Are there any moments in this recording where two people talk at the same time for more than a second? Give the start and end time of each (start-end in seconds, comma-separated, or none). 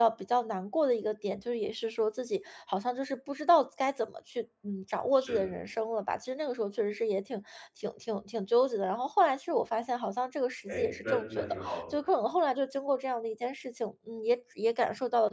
10.7-11.9